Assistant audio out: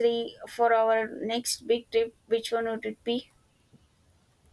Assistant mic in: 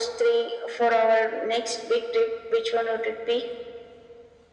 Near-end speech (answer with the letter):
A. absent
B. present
A